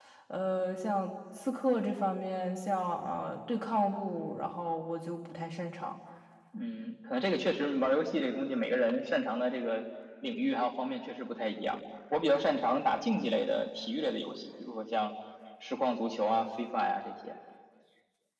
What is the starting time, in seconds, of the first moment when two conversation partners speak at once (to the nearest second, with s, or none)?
none